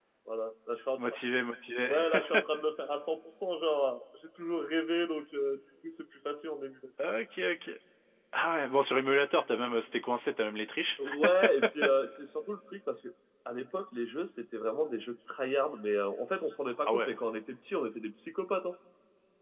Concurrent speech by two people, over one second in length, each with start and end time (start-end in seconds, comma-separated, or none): none